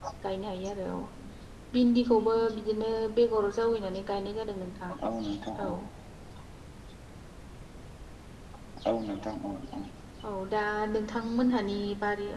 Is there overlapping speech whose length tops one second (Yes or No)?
No